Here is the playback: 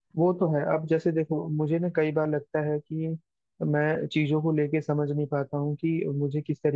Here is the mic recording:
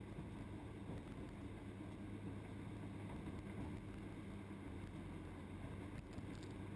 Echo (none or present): none